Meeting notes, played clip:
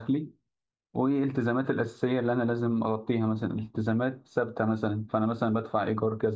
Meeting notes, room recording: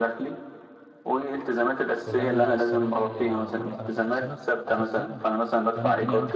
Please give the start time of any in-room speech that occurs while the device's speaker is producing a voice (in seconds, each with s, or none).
2.0 s